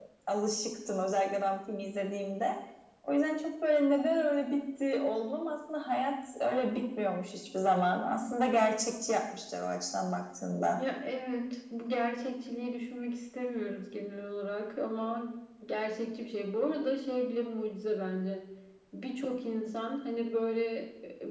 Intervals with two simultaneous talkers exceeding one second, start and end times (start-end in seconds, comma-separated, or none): none